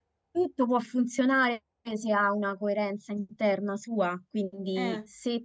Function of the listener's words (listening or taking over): listening